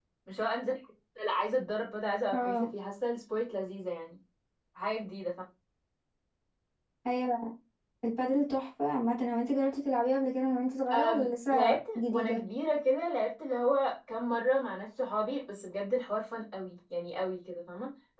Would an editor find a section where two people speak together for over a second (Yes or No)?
Yes